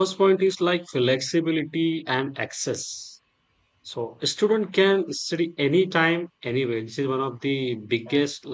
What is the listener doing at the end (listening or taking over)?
listening